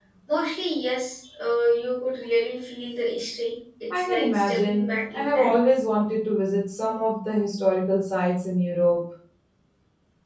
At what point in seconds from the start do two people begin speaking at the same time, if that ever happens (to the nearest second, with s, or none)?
4 s